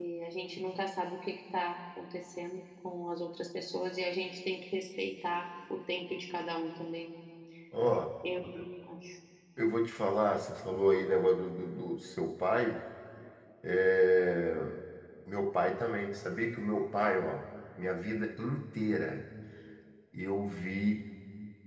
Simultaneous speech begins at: none

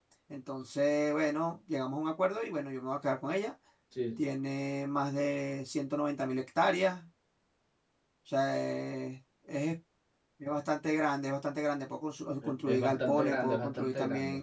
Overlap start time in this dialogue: 12.4 s

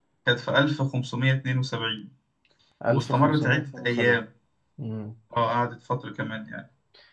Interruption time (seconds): 2.9 s

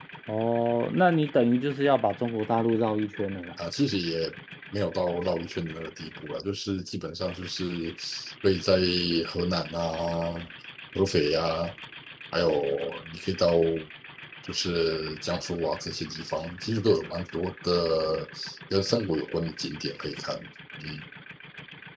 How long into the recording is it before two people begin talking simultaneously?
none

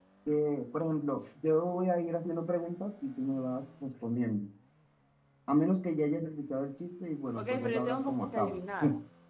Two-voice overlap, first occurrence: 7.4 s

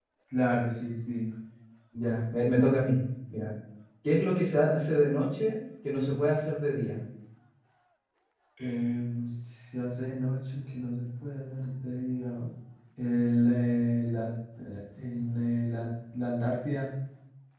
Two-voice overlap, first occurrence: none

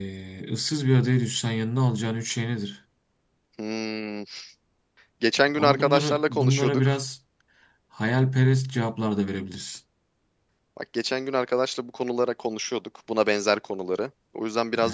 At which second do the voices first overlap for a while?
5.5 s

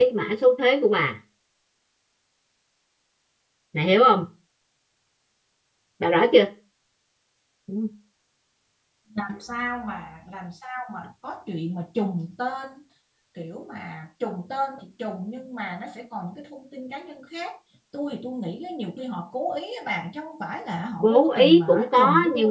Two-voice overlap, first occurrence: 21.0 s

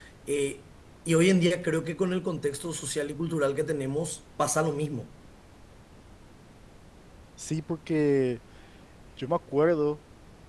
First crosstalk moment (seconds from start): none

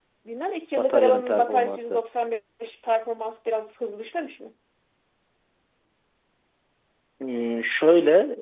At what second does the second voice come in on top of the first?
0.8 s

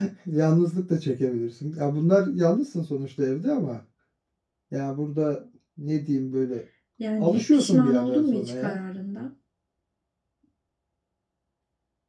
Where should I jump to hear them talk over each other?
7.2 s

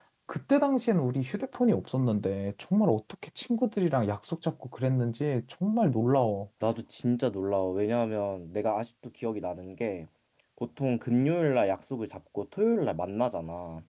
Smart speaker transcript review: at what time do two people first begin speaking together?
none

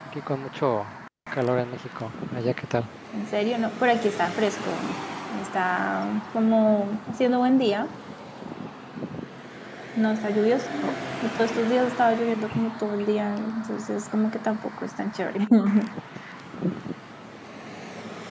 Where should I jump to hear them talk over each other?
none

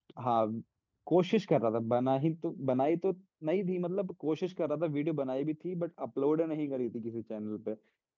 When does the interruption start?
none

